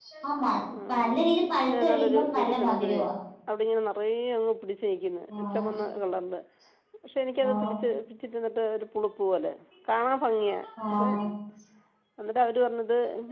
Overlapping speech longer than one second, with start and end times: 1.7-3.0

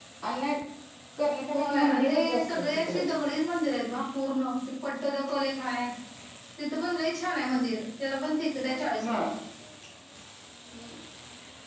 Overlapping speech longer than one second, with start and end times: 1.5-3.0

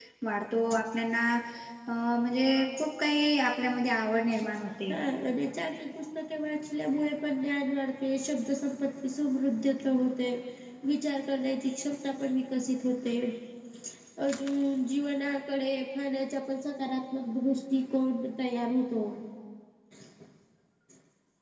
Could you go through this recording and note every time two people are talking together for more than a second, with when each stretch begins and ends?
none

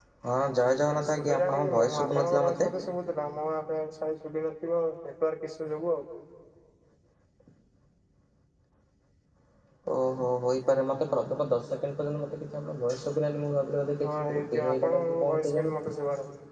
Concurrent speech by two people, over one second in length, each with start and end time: 0.9-2.7, 14.1-15.7

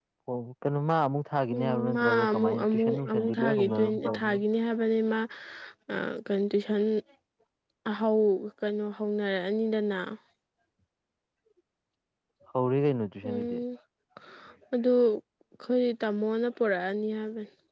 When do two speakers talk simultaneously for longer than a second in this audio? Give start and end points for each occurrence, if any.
1.5-4.4

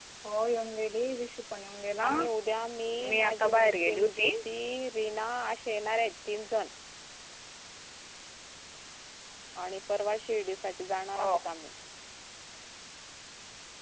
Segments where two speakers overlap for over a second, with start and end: 3.1-4.3

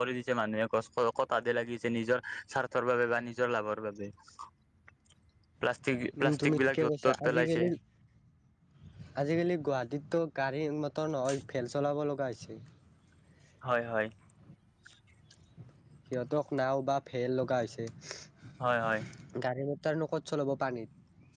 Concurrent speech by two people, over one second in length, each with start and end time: 6.2-7.6

